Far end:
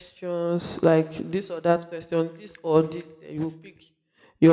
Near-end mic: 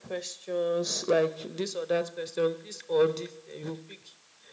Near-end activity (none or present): none